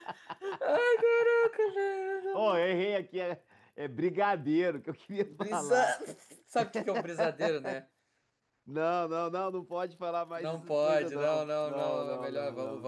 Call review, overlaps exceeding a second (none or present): present